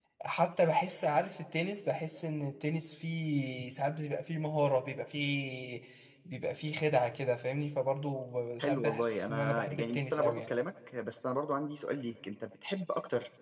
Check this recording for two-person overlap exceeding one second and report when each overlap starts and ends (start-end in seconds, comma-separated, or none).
8.6-10.5